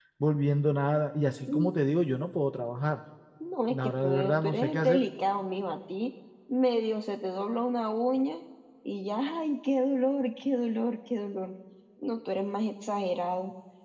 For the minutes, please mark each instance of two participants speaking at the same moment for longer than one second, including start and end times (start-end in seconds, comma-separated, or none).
3.8-5.0